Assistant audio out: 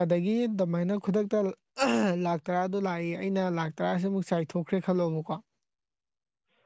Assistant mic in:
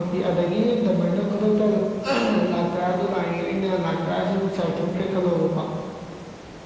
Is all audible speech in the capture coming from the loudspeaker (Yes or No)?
Yes